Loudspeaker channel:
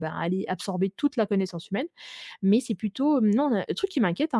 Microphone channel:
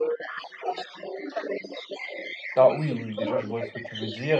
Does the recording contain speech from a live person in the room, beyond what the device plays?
Yes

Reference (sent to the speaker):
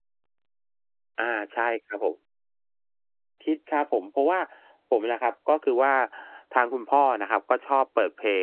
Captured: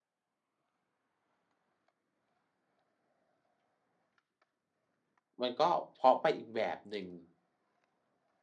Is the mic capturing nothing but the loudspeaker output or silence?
No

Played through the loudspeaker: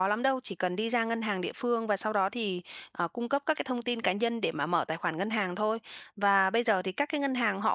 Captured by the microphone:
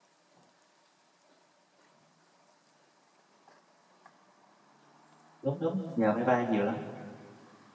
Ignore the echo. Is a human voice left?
Yes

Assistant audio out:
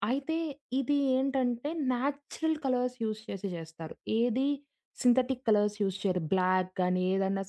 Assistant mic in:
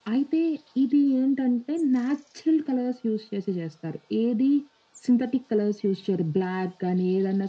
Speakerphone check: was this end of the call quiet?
Yes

